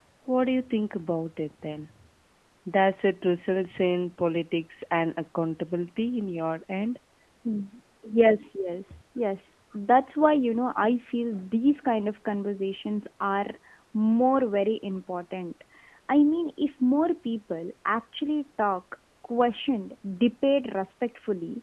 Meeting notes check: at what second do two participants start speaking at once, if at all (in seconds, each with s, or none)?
none